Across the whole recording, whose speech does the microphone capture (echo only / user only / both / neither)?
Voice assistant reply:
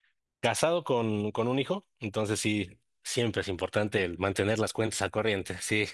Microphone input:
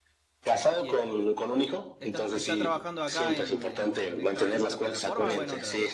both